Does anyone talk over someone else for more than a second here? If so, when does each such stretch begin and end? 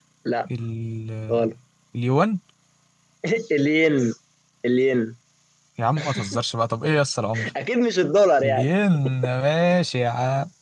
none

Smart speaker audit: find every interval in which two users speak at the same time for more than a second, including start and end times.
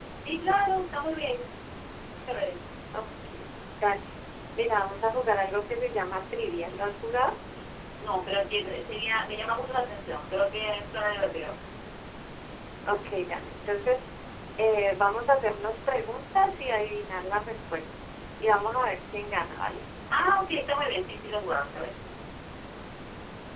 none

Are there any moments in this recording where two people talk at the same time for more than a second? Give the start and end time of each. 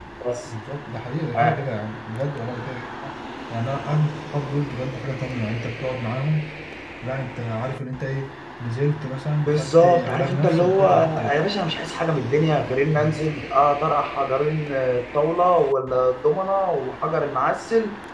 9.4-11.4

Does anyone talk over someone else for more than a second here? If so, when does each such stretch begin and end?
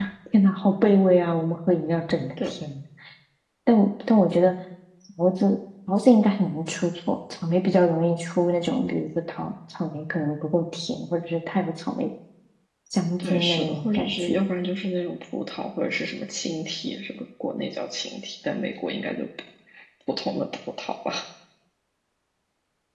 13.2-14.4

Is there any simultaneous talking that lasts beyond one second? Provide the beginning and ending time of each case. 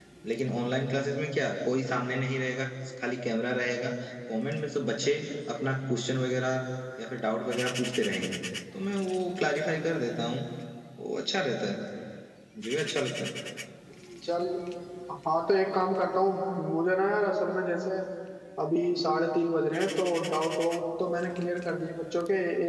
none

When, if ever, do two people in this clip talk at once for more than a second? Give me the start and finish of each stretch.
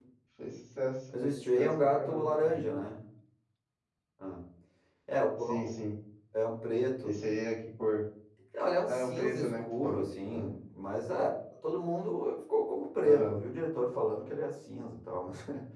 1.2-2.7, 8.9-10.5

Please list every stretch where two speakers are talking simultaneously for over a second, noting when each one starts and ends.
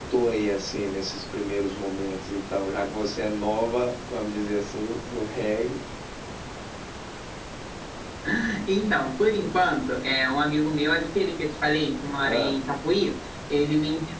none

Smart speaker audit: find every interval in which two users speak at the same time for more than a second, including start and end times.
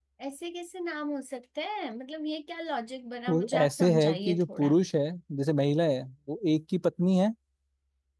3.3-4.8

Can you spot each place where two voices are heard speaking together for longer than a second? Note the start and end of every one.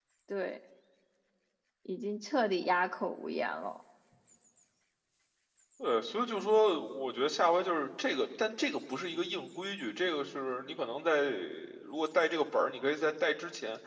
none

